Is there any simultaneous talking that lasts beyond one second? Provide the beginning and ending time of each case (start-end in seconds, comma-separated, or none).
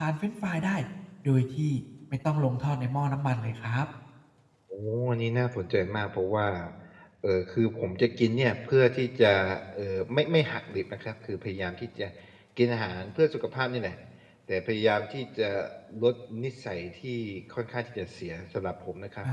none